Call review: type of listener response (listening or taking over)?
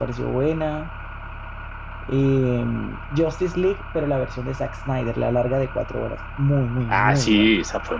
taking over